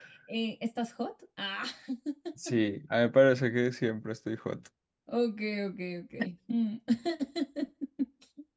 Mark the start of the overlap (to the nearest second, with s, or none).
none